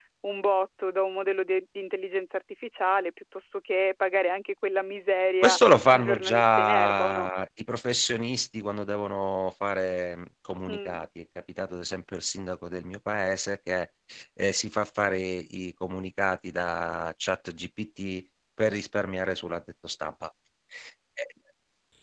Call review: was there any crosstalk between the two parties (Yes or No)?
Yes